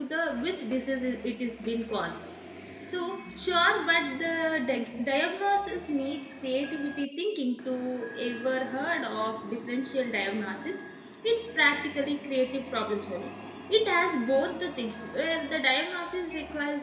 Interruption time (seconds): none

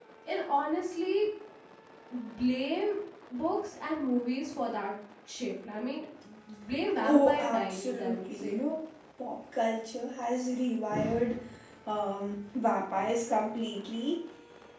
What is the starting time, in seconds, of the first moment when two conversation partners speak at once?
7.0 s

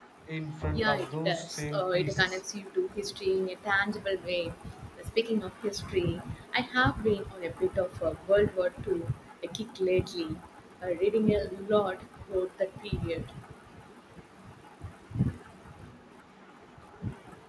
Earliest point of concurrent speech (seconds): 0.7 s

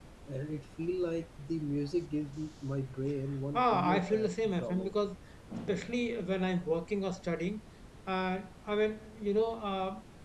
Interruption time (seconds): 3.5 s

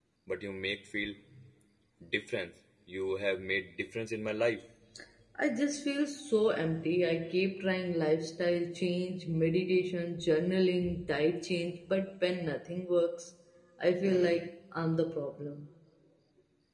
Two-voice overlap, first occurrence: none

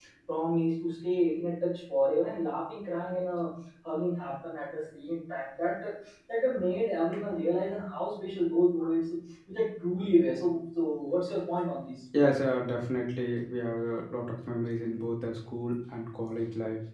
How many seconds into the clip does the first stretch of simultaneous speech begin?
none

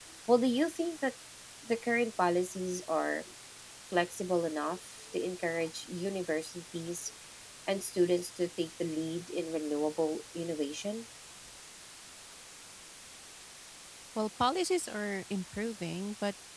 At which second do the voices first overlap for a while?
none

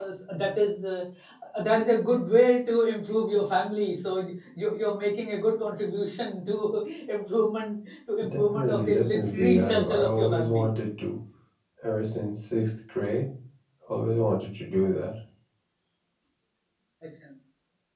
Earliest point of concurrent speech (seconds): 8.2 s

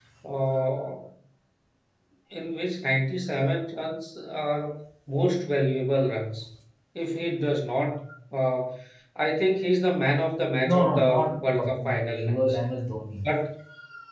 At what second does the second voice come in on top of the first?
10.6 s

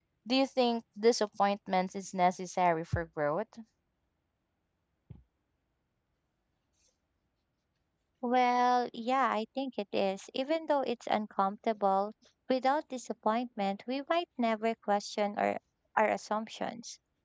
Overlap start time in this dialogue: none

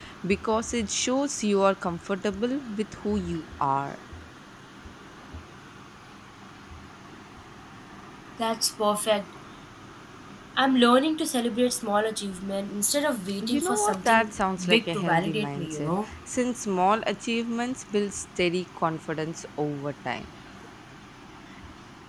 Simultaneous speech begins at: 13.4 s

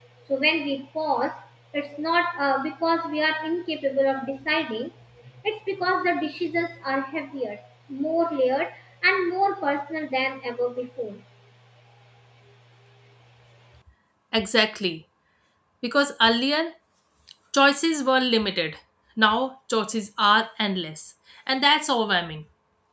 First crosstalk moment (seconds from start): none

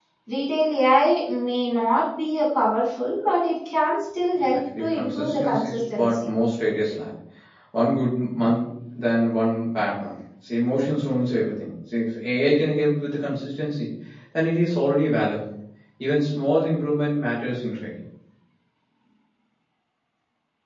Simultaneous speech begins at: 4.4 s

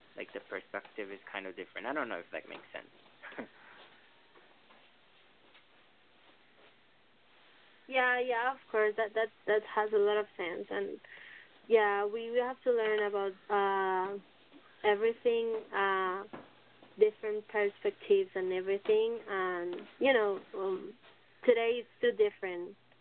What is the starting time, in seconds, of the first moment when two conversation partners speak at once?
none

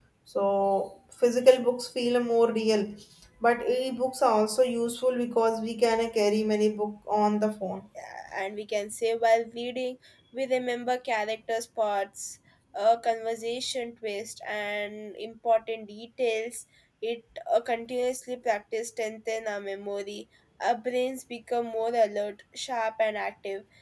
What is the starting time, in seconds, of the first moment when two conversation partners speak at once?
none

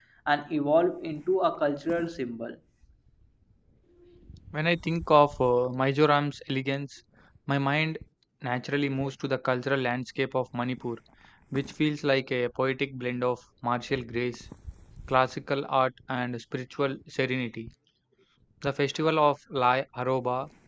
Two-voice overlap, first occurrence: none

